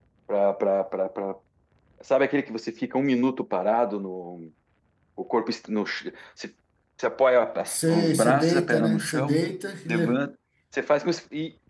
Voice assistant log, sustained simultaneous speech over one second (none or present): present